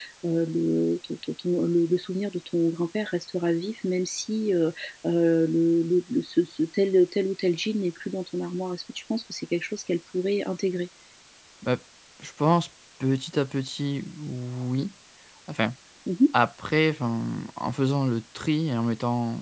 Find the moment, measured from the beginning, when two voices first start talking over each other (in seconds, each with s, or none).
none